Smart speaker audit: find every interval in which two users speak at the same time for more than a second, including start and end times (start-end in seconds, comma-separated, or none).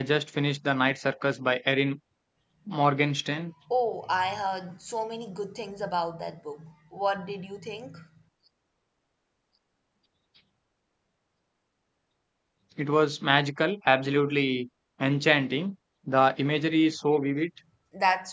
none